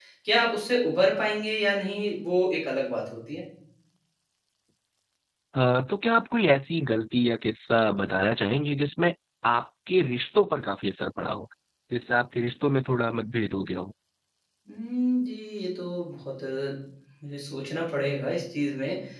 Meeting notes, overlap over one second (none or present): none